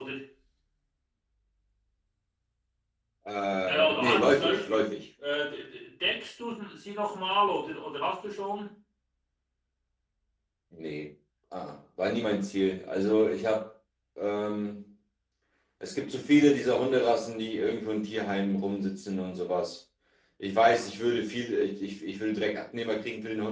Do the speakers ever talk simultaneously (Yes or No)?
Yes